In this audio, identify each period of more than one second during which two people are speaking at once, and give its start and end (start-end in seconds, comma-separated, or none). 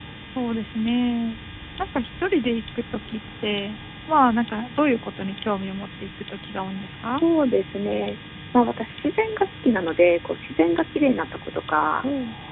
none